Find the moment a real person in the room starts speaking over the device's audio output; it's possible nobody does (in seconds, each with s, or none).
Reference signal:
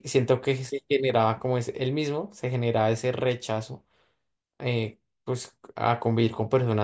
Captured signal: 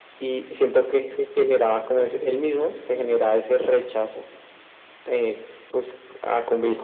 1.9 s